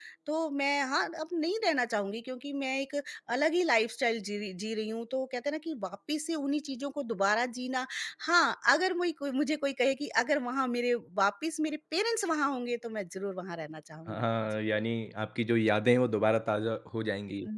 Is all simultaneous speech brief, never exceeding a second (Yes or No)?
Yes